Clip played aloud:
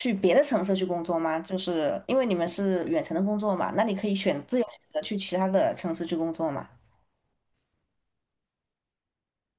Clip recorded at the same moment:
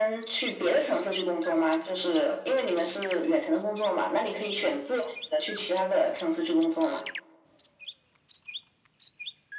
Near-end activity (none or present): none